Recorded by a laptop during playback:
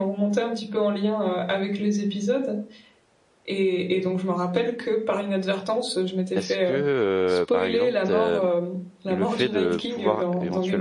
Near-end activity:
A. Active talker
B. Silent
A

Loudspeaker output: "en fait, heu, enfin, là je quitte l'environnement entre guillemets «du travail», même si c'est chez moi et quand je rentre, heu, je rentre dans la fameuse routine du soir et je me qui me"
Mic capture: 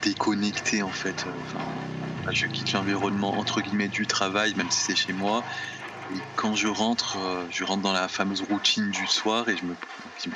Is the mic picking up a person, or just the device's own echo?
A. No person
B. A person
A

